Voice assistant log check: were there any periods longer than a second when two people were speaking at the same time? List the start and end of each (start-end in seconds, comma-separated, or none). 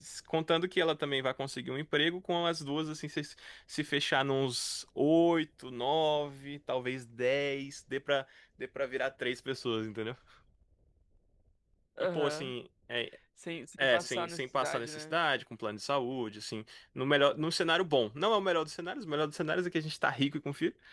13.8-15.2